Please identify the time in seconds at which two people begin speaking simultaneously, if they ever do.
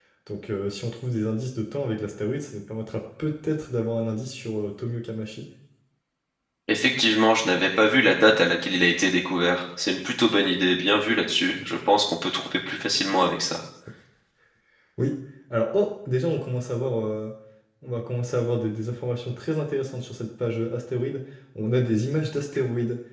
none

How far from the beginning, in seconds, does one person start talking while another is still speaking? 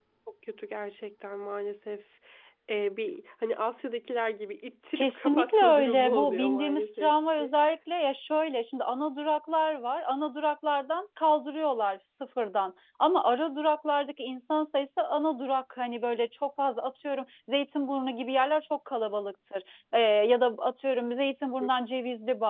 5.0 s

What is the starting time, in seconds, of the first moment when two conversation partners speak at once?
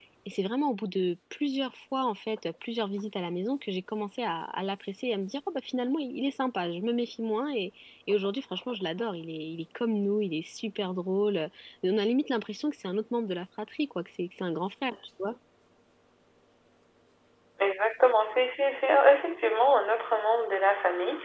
none

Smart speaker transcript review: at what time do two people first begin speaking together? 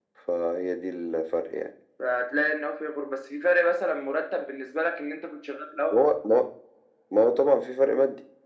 none

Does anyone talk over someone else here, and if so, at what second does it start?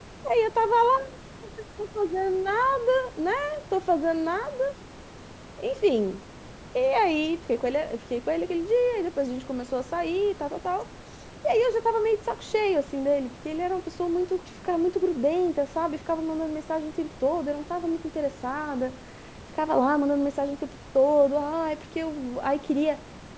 none

